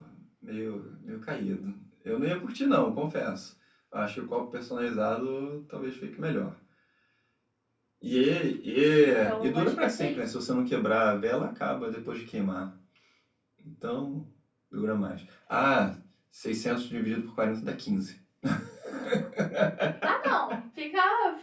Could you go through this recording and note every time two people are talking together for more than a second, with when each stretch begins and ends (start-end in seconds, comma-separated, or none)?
9.0-10.2